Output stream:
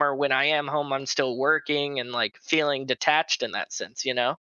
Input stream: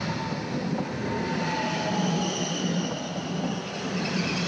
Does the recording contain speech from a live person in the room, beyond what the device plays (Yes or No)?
No